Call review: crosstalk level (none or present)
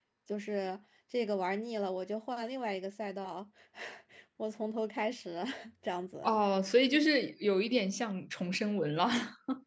none